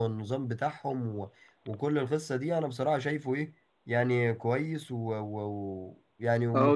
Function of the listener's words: taking over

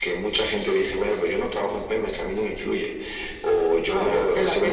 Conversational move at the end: taking over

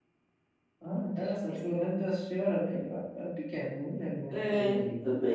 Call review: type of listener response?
taking over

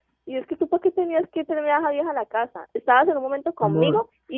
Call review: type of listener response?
listening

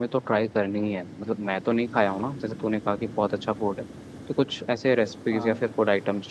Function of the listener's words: listening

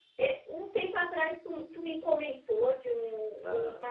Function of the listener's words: listening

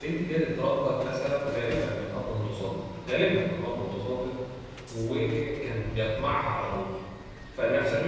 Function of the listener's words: listening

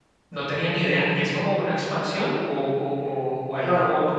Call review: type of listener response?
taking over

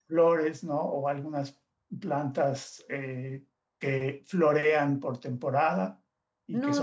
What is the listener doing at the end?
taking over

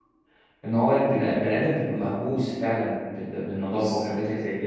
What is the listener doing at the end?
listening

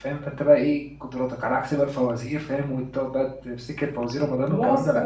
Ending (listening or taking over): taking over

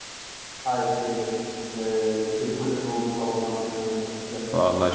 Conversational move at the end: taking over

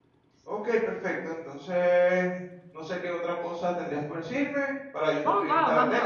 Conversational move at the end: taking over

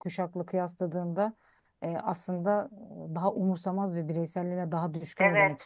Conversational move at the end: taking over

